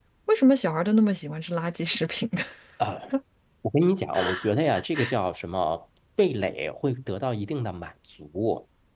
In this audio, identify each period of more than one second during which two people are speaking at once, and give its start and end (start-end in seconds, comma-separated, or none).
none